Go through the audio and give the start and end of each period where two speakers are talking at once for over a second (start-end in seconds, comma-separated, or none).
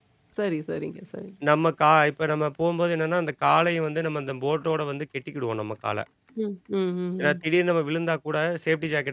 none